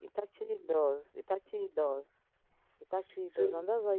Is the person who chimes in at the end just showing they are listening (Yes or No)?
Yes